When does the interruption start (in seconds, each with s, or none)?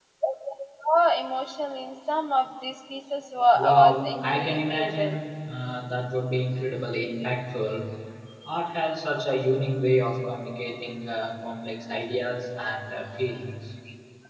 3.5 s